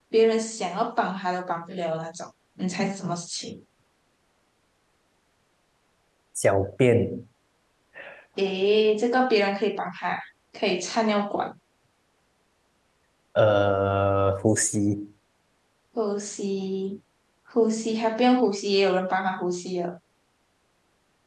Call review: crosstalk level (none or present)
none